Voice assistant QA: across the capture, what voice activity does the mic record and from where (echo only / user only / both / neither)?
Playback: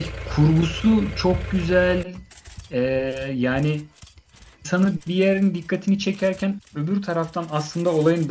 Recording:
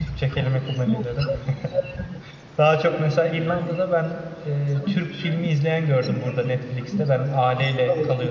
both